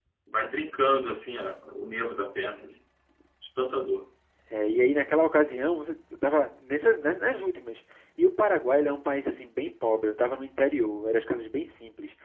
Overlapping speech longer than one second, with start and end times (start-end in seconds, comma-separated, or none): none